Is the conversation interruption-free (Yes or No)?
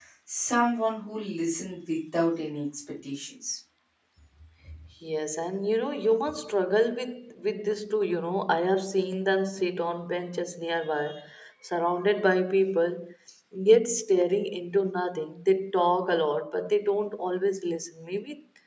Yes